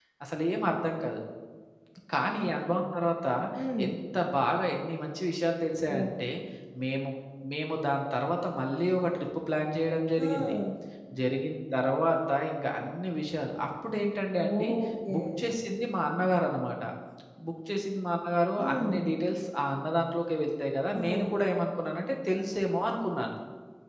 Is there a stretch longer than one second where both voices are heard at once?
No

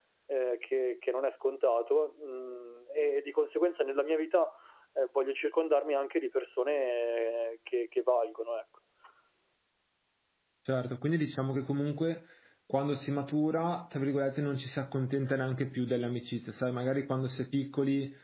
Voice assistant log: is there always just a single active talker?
Yes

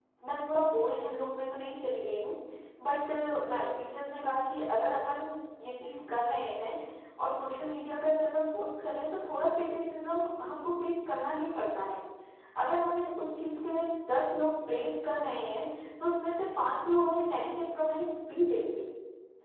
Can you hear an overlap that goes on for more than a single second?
No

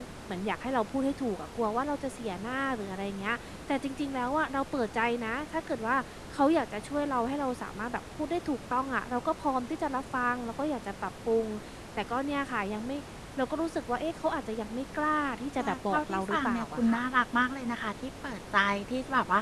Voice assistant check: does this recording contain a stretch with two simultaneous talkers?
Yes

